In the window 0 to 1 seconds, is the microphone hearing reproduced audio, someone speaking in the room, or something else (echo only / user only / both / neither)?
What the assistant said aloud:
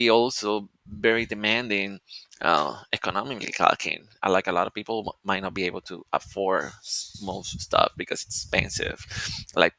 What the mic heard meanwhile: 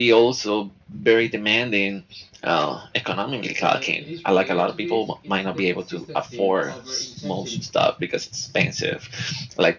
echo only